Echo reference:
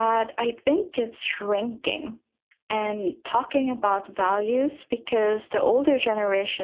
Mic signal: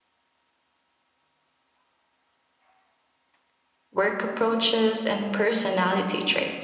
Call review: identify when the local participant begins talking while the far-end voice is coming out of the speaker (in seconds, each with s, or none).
3.9 s